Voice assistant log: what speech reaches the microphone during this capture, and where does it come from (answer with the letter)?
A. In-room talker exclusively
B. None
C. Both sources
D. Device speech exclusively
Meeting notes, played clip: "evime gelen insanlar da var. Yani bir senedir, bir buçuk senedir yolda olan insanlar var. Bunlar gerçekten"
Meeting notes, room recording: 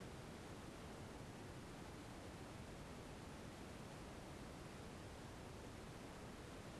B